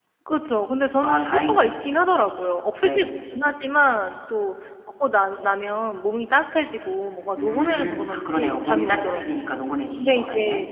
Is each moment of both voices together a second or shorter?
No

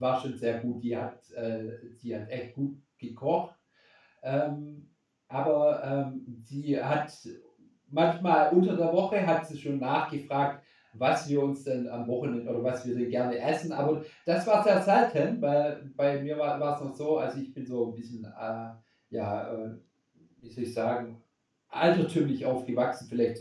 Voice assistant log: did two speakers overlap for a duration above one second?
No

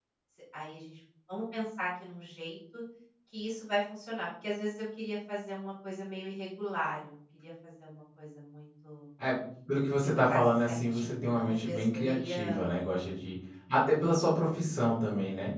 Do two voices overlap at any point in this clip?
Yes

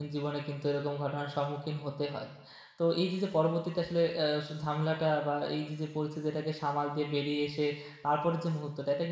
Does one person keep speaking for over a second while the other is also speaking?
No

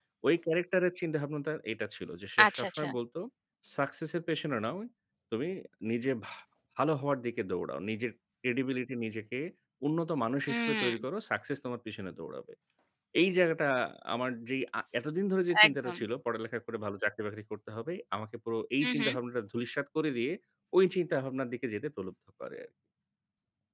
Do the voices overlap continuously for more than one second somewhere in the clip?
No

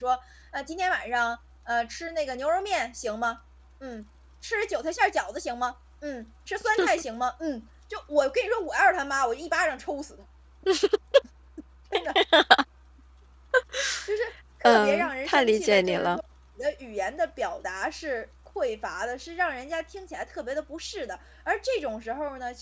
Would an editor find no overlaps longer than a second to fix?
No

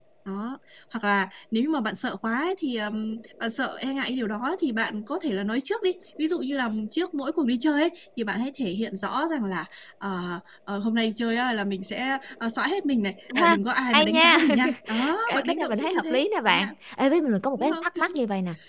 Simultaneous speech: Yes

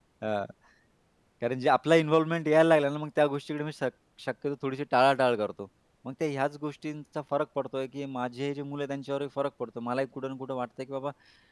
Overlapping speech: No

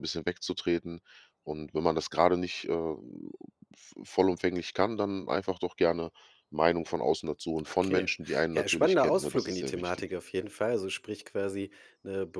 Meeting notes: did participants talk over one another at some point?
Yes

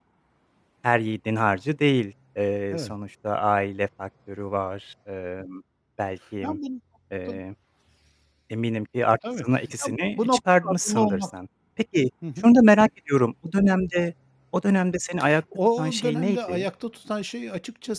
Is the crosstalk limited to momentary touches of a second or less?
No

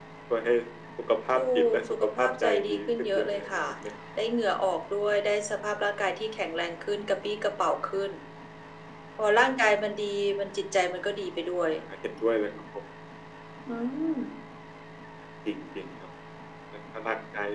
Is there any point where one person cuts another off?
Yes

